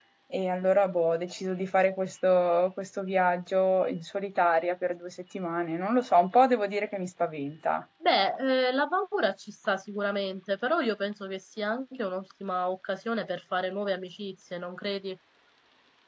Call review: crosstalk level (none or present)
none